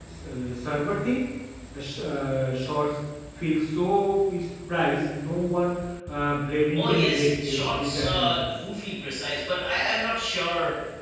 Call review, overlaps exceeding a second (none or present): present